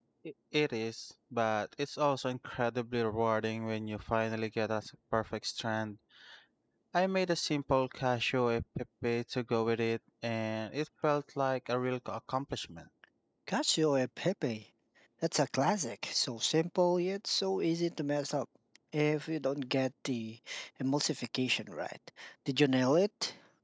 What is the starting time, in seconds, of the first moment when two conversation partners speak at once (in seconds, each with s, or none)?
none